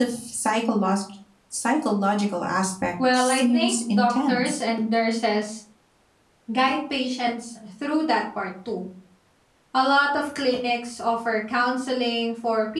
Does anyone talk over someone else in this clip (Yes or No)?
Yes